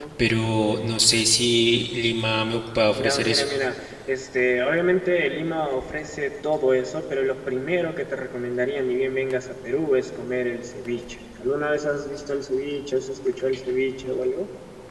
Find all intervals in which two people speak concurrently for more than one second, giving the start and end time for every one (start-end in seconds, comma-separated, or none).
none